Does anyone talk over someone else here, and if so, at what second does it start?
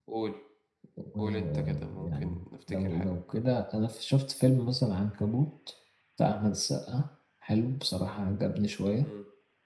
1.2 s

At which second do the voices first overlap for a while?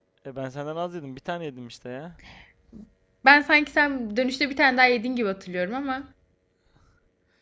none

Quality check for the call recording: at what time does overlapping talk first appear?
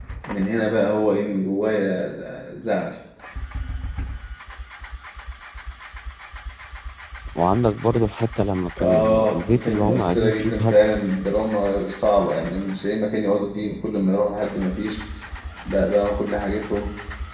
8.8 s

